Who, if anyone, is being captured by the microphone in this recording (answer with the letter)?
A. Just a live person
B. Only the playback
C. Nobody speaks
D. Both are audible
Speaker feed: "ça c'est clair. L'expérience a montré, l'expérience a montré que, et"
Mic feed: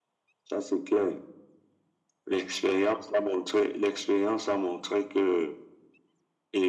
B